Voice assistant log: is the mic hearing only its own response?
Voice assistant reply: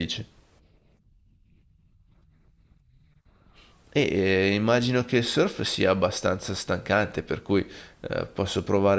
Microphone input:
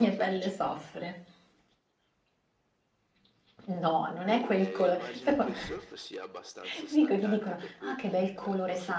No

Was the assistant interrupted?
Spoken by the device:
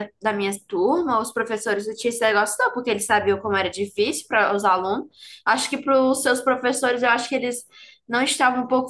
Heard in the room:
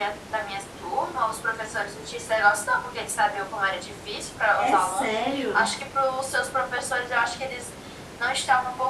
Yes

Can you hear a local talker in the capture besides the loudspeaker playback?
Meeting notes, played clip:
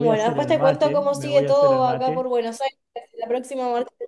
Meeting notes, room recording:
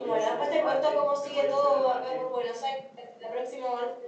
No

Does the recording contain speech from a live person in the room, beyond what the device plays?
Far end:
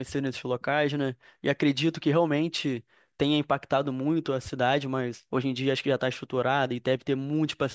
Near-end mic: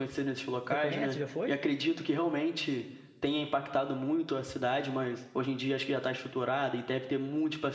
Yes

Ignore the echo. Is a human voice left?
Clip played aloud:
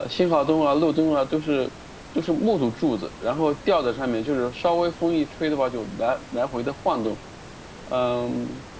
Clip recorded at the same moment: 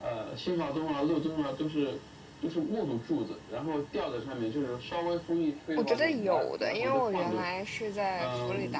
Yes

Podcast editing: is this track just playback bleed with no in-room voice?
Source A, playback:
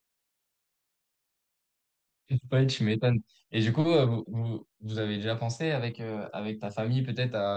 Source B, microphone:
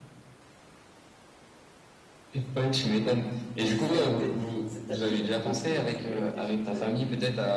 No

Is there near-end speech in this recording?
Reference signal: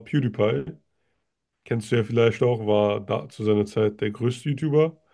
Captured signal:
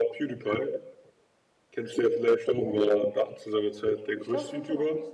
Yes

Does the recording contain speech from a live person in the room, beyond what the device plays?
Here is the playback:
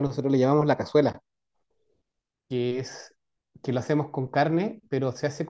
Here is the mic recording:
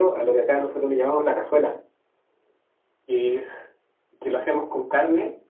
No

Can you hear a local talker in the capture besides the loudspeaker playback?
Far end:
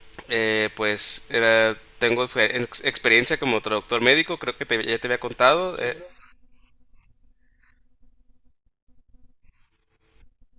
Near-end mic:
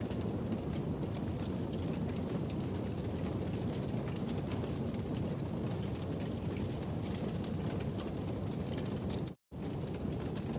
No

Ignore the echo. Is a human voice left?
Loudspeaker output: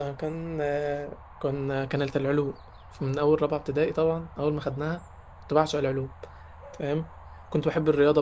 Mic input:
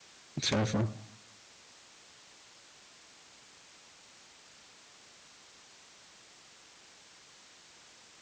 Yes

